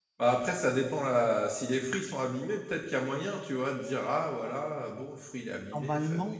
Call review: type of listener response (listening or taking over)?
taking over